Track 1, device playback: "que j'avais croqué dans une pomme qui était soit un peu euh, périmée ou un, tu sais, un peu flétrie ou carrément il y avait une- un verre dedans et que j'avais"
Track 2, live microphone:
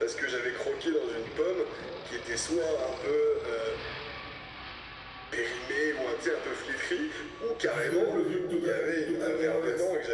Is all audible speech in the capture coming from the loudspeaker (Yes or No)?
No